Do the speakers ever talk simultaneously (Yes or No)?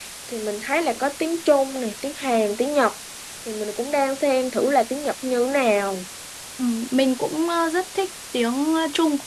No